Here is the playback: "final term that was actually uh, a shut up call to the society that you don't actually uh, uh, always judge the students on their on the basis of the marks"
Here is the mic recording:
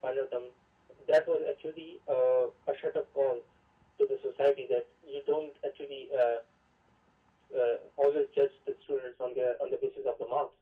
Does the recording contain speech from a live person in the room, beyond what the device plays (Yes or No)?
No